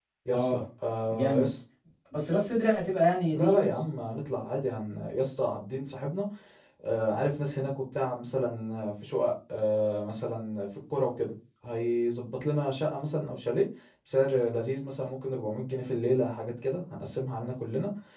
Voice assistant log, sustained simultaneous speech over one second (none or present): none